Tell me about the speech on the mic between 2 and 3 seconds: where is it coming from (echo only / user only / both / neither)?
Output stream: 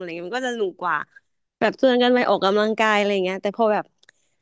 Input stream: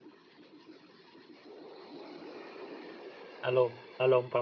neither